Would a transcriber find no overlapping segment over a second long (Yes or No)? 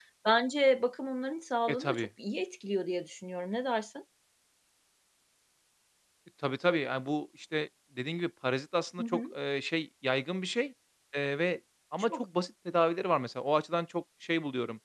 Yes